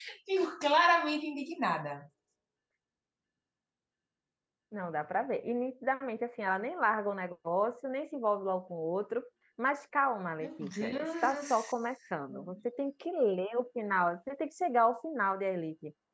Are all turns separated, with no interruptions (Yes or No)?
No